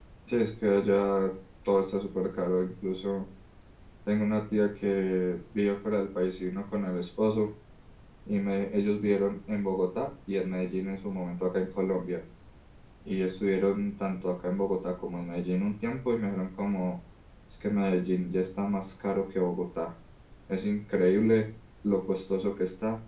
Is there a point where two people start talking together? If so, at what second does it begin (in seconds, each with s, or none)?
none